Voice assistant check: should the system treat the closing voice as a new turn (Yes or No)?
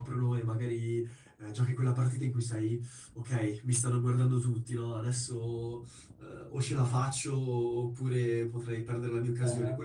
No